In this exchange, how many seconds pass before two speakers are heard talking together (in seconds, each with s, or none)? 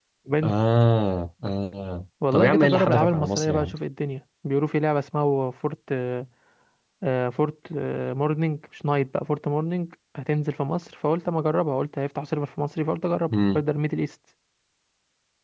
2.3 s